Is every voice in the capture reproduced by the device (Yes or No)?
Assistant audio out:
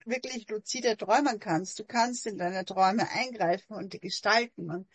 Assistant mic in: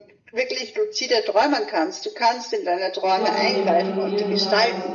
No